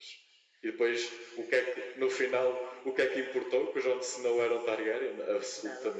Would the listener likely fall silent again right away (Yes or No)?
No